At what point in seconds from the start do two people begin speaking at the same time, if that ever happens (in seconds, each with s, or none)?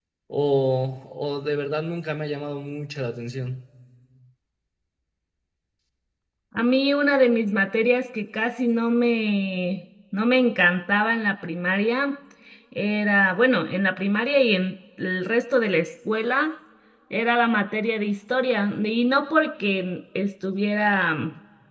none